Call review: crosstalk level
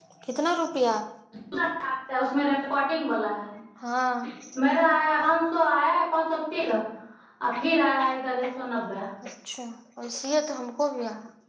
none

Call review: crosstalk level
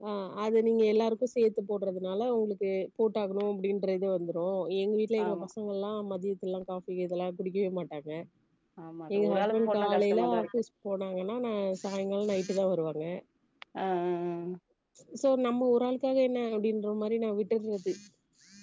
present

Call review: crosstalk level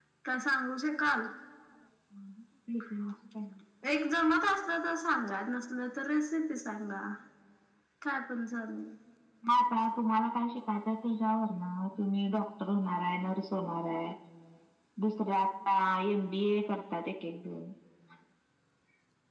none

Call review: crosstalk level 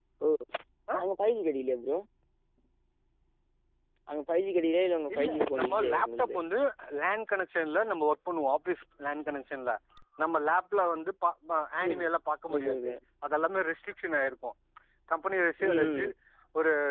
present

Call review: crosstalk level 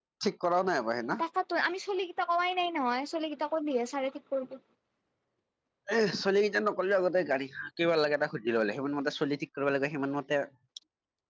none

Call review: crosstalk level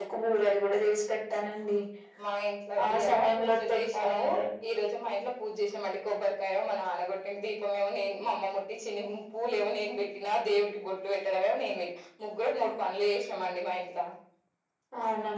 present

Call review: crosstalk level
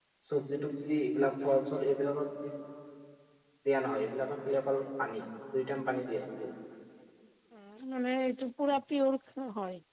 none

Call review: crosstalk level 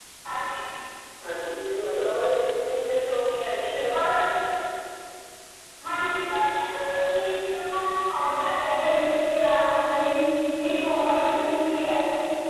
none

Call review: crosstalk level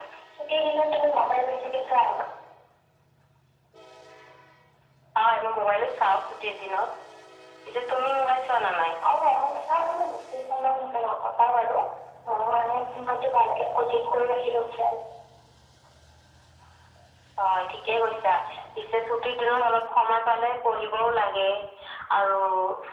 none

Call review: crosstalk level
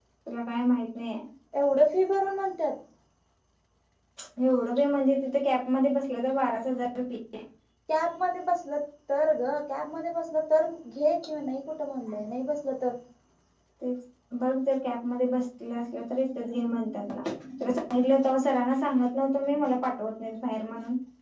none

